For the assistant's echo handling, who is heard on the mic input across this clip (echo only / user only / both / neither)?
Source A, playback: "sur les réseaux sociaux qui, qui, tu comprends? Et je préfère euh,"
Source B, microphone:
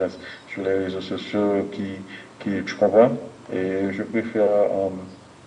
echo only